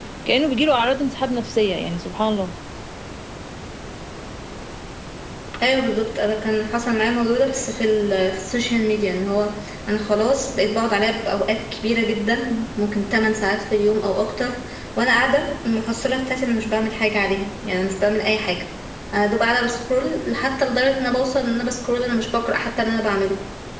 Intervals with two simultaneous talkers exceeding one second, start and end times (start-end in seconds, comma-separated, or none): none